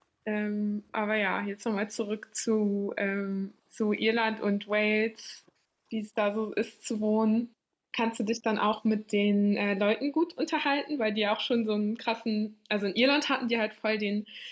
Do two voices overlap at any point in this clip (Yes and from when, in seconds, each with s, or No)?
No